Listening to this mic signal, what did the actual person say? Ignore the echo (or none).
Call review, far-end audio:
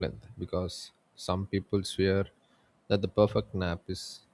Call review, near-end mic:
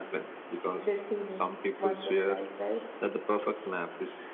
these feelings once in a life, right?